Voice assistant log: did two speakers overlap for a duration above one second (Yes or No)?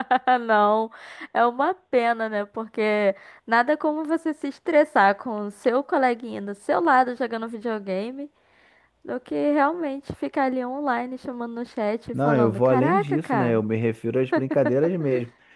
Yes